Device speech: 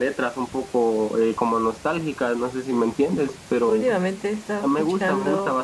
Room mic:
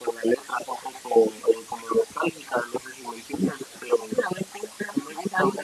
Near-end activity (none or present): none